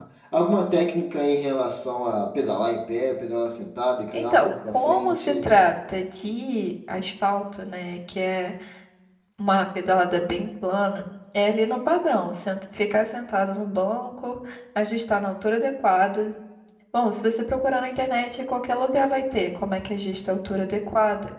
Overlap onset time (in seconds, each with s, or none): 4.1 s